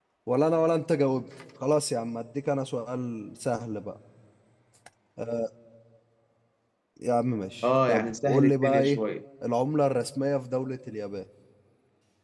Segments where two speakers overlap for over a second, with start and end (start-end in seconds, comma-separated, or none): 7.6-9.0